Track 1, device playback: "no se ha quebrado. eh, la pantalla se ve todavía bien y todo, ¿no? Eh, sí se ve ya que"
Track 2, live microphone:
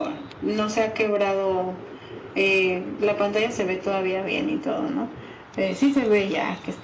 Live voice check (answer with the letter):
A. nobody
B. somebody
A